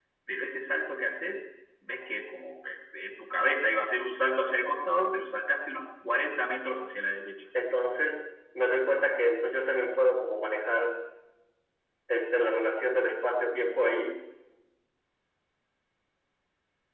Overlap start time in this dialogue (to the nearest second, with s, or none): none